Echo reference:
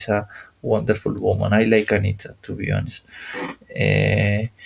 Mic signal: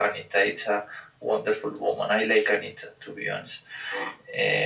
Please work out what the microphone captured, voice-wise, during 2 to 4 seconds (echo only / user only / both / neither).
echo only